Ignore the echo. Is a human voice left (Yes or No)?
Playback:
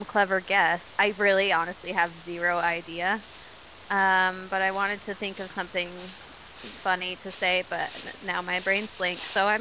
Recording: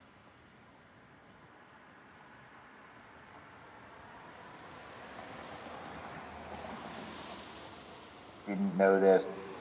Yes